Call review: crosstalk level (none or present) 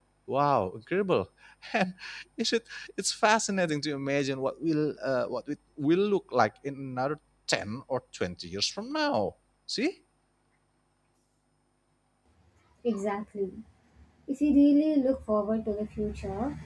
none